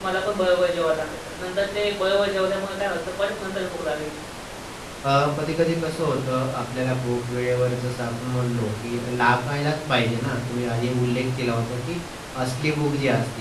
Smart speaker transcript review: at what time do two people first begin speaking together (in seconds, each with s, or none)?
none